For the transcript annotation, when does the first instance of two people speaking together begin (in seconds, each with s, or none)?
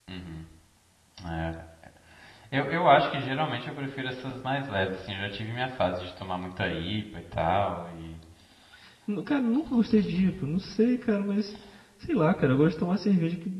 none